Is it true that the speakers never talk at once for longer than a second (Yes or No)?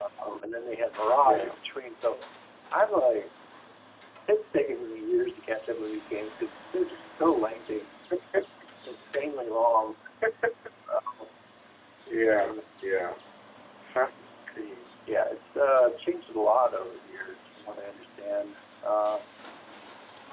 Yes